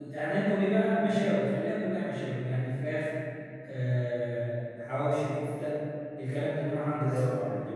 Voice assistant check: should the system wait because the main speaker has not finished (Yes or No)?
Yes